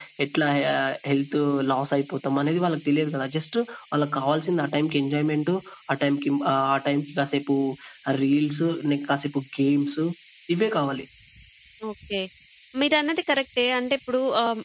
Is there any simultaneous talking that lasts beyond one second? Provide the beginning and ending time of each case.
none

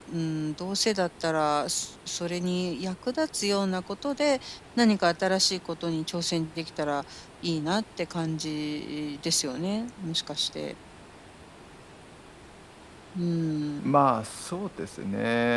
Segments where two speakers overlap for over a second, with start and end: none

